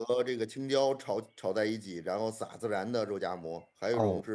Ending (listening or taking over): listening